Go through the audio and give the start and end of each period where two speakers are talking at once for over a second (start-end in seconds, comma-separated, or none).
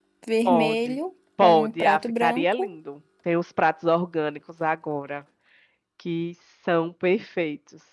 1.4-2.8